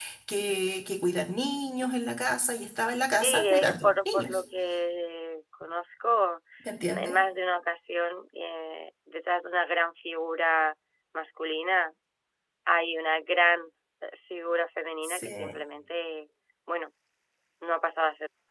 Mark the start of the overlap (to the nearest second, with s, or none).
3 s